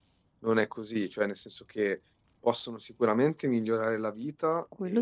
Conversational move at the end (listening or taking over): listening